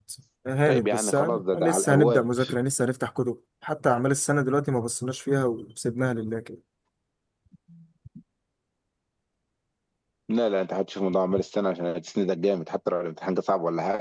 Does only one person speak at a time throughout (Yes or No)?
No